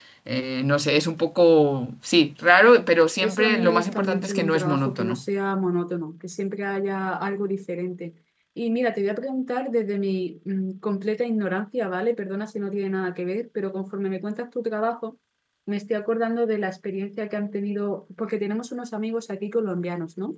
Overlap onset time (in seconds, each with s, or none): 3.2 s